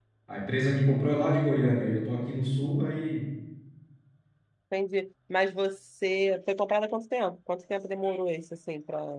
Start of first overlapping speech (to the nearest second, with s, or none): none